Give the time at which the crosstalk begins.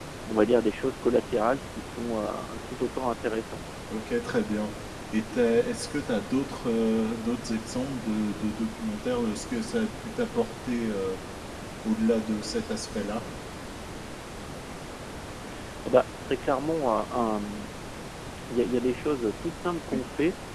none

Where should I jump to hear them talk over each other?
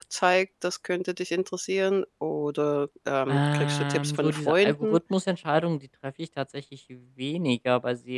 3.3 s

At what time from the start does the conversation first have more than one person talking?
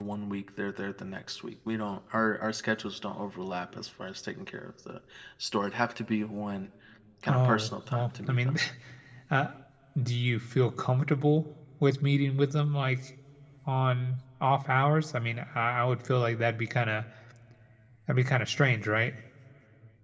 7.3 s

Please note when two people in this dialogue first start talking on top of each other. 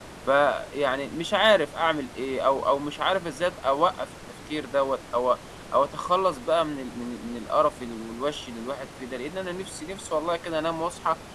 none

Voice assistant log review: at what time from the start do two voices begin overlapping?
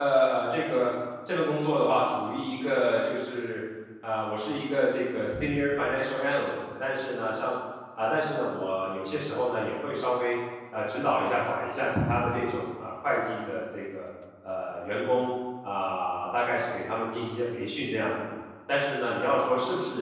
none

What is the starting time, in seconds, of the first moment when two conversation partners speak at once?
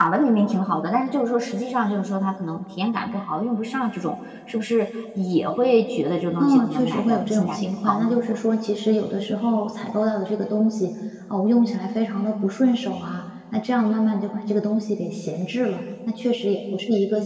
6.3 s

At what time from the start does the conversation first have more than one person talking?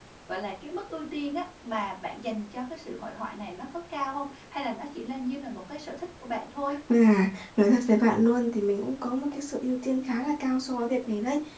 none

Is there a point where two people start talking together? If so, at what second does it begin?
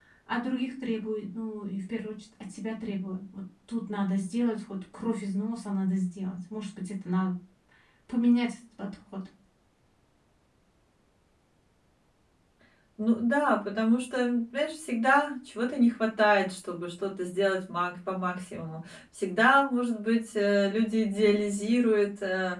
none

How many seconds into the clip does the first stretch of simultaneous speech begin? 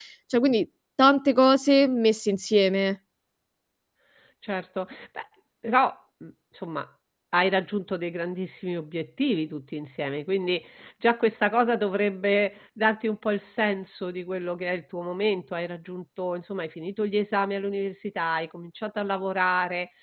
none

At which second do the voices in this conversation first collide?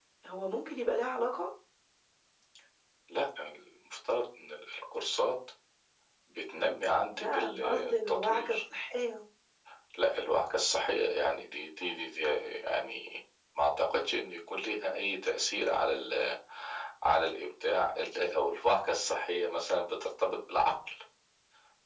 7.2 s

